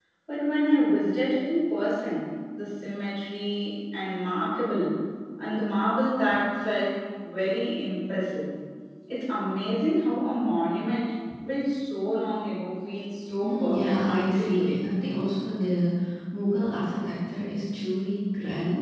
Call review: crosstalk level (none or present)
present